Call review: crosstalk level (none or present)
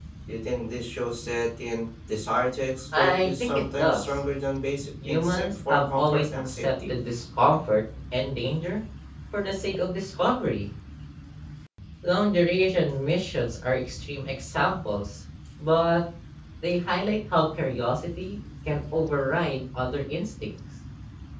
present